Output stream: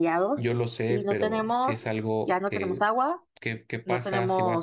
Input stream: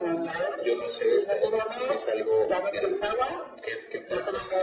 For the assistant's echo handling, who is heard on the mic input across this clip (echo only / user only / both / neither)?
echo only